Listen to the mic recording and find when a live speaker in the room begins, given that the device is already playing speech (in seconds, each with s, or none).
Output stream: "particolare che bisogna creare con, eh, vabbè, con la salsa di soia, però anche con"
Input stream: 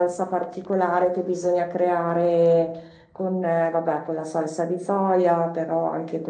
none